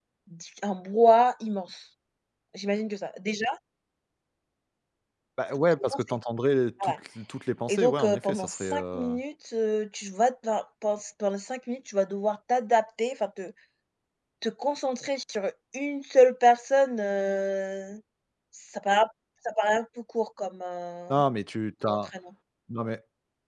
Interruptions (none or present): present